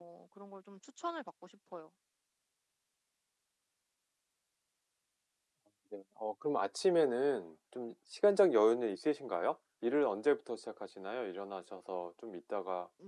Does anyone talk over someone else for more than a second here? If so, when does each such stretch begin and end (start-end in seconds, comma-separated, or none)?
none